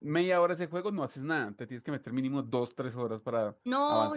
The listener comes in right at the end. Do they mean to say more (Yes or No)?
Yes